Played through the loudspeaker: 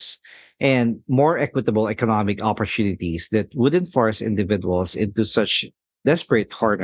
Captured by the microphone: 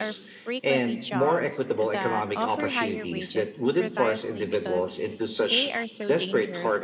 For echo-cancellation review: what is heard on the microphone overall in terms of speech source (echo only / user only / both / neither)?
both